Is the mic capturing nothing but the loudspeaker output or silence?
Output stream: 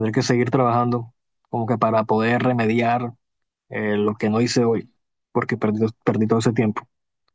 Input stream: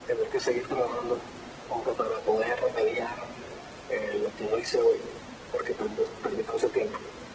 Yes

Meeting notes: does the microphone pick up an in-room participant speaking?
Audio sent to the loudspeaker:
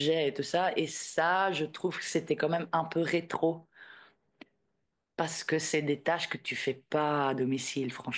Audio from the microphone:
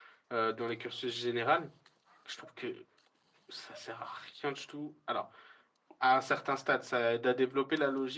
Yes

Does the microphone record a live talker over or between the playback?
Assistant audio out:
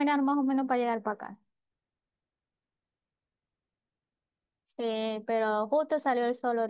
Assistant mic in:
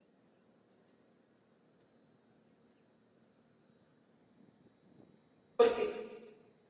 Yes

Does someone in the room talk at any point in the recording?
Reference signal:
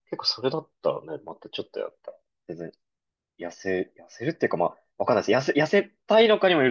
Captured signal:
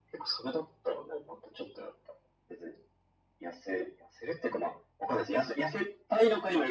No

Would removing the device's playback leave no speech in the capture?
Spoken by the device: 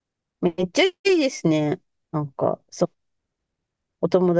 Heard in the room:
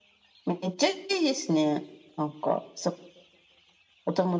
Yes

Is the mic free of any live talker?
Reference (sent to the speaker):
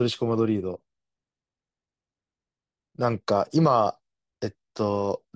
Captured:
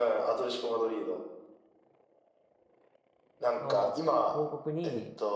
No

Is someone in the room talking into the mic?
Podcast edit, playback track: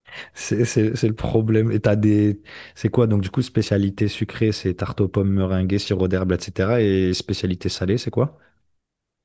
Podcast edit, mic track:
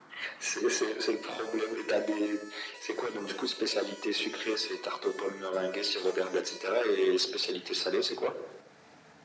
No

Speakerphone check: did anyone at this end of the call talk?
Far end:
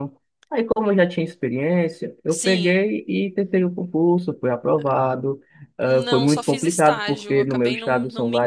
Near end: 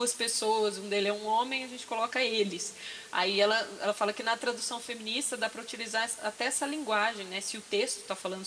Yes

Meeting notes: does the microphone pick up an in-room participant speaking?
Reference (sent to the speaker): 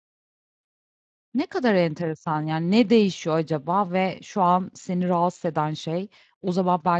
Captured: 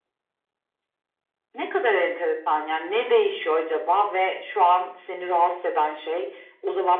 No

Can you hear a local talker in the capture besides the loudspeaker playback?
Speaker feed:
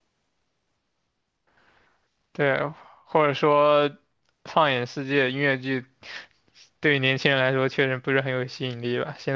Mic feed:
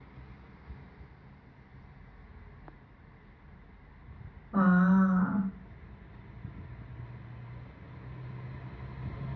Yes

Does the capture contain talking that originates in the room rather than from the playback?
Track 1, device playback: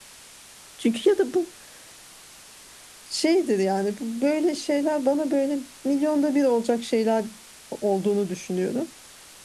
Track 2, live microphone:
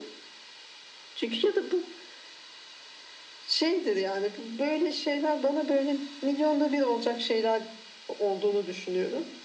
No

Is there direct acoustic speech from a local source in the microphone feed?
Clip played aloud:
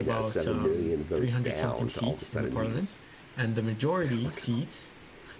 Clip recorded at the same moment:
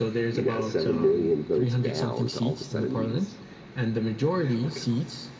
No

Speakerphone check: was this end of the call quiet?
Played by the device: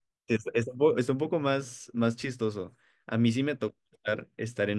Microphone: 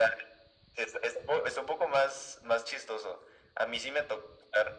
Yes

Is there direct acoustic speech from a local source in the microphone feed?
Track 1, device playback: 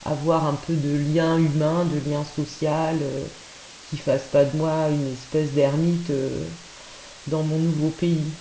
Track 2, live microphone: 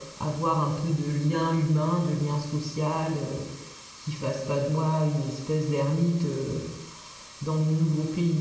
No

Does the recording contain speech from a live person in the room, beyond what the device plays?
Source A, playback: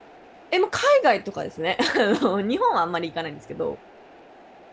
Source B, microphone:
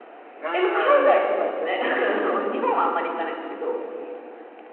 Yes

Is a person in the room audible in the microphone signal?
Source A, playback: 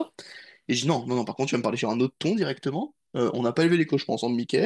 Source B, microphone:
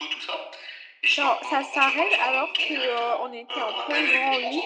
Yes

